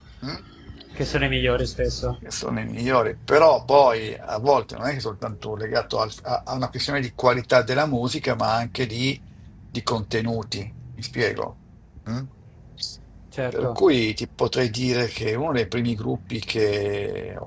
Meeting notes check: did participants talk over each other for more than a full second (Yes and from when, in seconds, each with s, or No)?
No